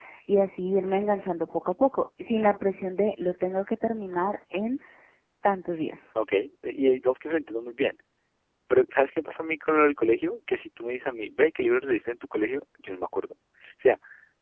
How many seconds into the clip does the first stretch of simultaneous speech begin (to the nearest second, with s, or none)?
none